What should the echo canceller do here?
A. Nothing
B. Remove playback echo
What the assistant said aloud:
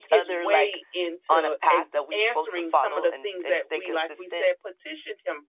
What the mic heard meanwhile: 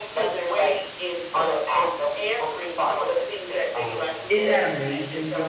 B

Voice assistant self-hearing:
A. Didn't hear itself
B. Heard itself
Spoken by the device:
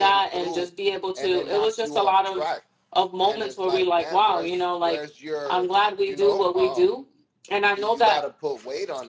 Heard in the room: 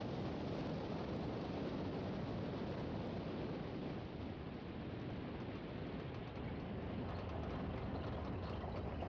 A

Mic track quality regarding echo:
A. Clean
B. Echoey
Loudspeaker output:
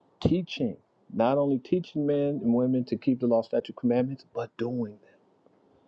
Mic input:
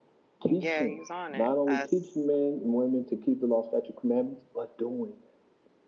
B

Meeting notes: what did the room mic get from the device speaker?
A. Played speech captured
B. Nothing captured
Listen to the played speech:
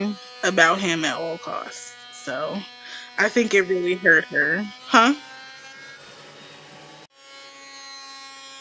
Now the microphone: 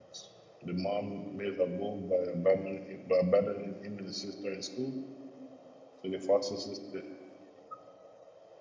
B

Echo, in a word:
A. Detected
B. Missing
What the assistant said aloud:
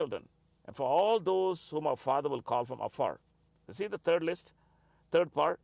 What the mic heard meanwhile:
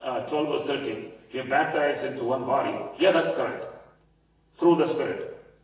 B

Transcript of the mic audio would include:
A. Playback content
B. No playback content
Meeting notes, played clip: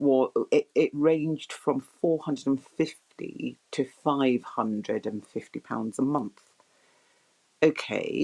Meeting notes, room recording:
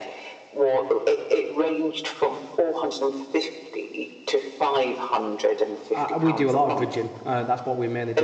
A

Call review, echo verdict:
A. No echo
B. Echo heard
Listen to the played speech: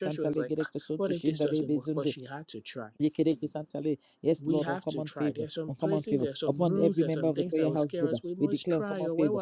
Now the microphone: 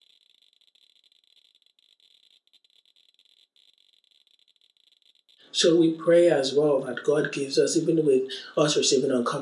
A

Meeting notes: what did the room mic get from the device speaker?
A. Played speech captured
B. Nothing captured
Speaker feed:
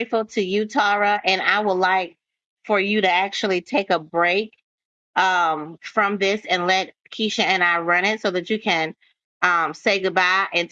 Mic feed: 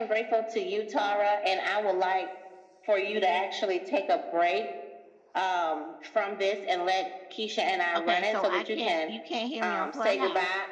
A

